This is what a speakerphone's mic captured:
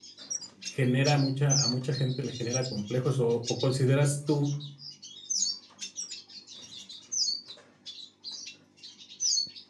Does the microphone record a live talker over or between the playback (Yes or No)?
Yes